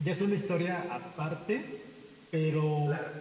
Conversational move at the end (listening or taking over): listening